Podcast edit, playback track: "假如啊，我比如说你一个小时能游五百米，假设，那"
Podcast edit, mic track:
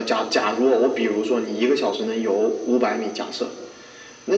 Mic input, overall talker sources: echo only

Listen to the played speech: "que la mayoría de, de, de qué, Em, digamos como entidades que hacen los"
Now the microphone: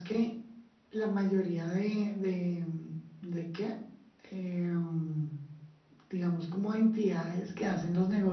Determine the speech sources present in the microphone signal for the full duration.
echo only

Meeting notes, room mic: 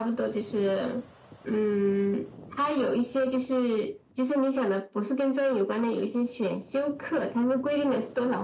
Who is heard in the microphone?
echo only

